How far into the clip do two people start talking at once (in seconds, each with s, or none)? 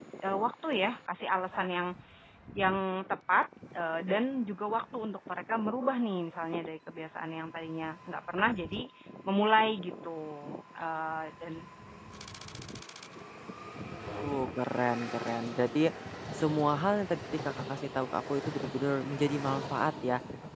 none